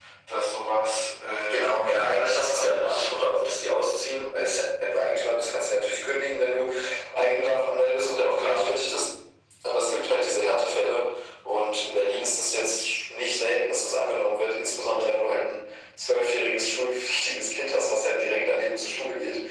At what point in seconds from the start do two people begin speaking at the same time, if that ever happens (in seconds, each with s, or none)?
1.5 s